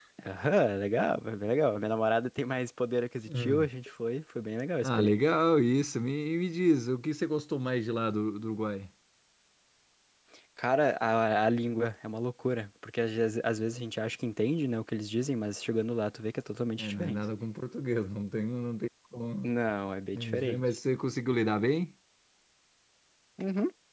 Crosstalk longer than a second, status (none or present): none